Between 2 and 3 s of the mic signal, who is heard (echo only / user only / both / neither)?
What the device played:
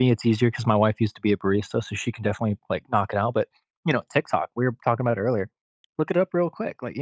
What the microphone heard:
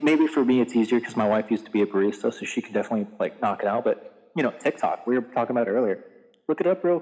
echo only